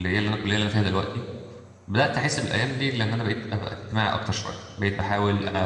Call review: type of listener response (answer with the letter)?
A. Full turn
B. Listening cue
B